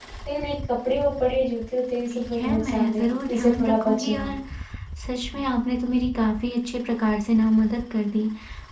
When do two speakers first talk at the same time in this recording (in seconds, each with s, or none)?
2.1 s